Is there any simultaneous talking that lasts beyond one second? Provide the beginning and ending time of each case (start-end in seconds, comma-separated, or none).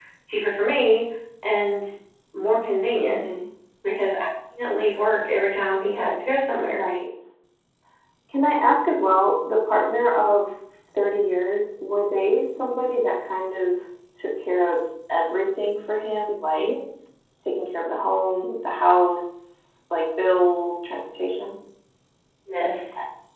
none